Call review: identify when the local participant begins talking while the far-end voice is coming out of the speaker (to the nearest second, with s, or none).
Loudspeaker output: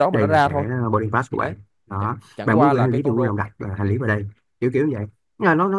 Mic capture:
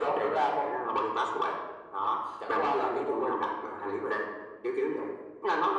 none